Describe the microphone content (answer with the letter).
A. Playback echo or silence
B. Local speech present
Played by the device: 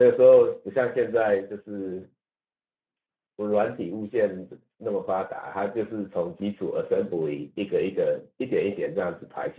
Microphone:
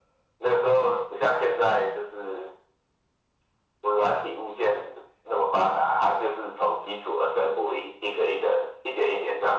A